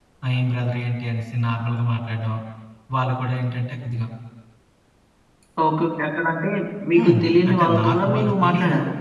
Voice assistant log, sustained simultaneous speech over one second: present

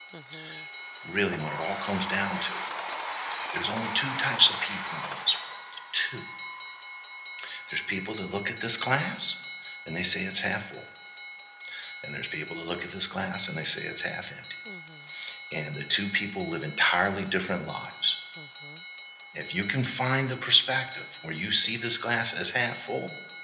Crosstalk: none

